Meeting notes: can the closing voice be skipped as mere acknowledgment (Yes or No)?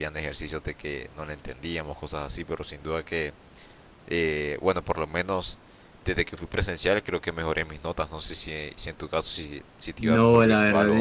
No